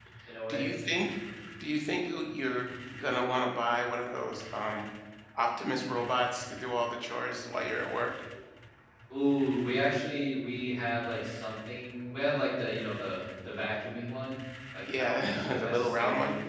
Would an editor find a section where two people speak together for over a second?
Yes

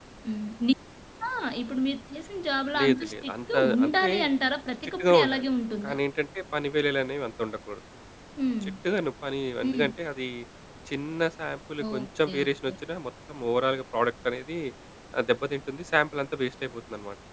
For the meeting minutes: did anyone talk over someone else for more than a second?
Yes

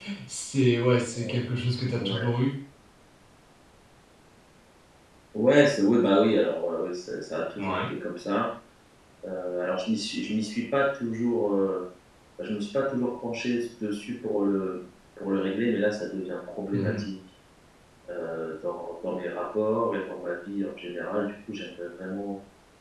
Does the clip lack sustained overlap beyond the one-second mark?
Yes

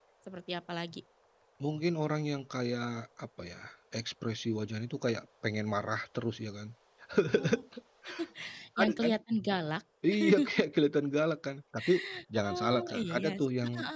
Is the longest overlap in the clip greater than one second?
Yes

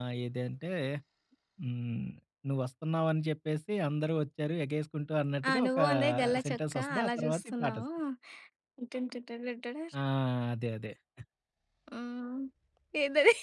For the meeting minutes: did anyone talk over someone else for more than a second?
Yes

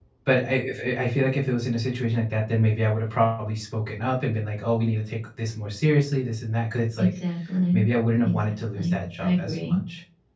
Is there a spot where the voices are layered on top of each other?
Yes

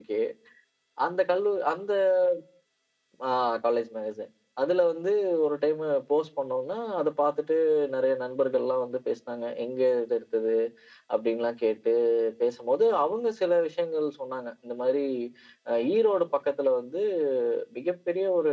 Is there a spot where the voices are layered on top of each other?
No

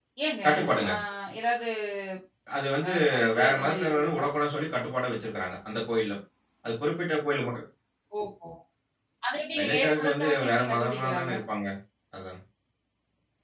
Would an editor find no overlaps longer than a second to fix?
No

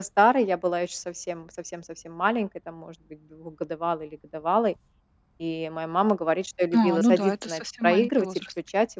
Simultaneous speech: Yes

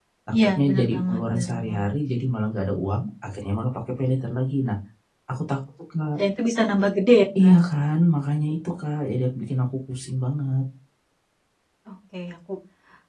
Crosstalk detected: Yes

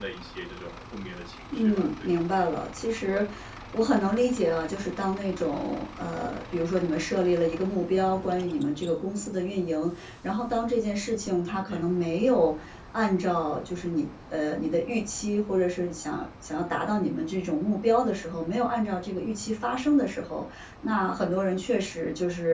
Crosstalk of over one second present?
No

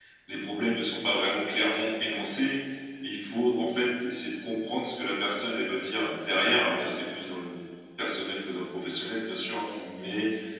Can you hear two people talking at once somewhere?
No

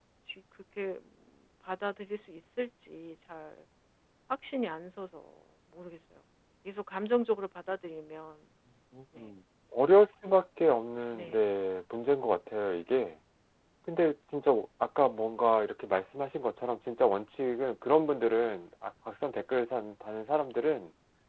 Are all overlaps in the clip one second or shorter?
Yes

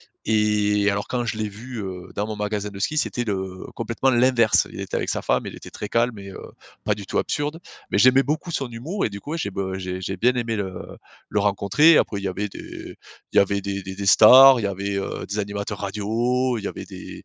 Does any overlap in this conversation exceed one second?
No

